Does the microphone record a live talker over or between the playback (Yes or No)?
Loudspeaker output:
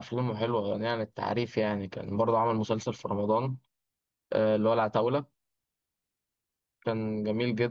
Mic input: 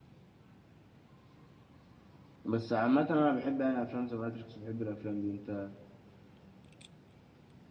Yes